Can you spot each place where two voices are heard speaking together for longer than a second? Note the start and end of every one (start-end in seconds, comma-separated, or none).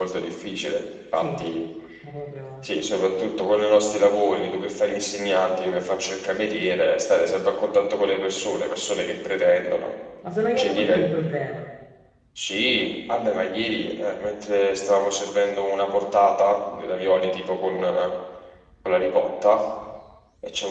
none